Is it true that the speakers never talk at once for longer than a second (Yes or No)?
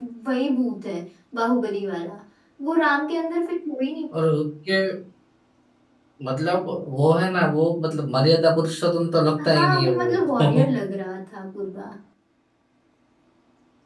No